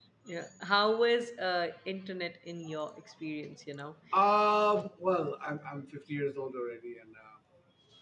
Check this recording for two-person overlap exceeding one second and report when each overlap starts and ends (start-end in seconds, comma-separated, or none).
none